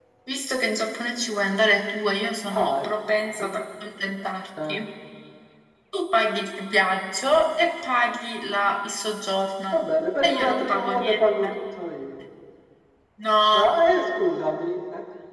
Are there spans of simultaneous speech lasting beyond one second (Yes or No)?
Yes